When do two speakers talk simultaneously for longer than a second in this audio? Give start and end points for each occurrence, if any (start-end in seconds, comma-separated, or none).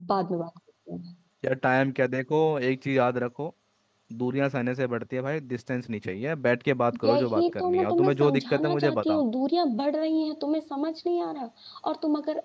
7.0-9.2